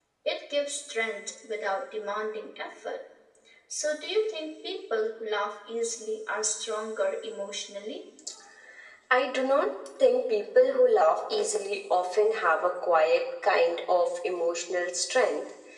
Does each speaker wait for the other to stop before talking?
Yes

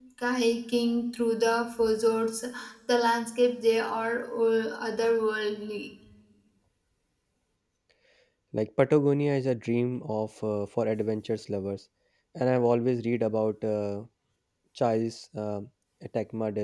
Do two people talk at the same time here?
No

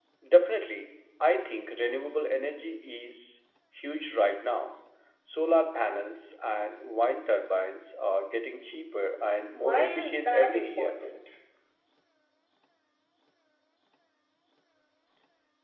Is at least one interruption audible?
Yes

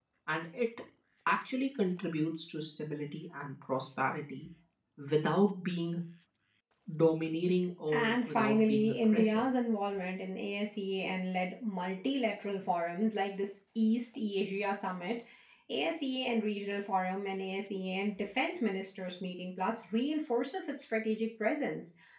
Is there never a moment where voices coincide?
No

